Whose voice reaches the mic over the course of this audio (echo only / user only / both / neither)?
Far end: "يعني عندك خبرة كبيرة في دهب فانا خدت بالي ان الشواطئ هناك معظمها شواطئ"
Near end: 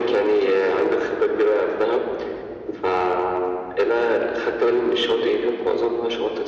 echo only